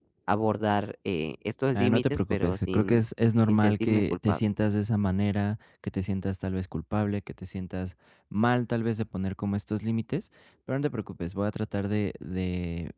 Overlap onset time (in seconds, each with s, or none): 1.7 s